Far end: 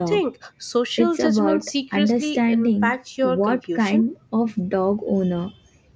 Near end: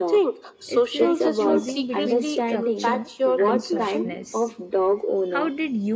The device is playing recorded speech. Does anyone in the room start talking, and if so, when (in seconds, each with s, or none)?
0.7 s